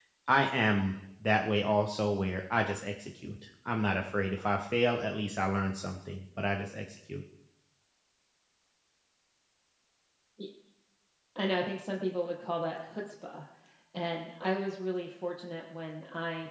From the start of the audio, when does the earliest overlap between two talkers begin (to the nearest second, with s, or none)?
none